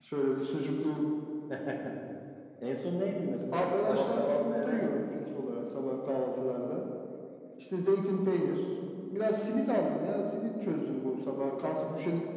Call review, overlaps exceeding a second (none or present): present